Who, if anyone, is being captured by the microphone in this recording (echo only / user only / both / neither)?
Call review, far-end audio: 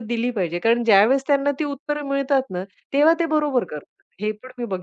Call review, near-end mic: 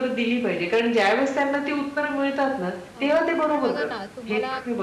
both